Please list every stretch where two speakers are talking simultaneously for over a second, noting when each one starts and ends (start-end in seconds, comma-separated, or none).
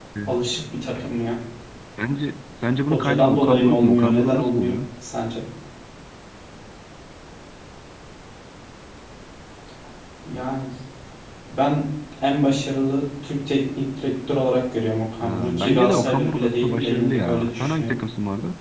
2.9-4.7, 15.2-18.0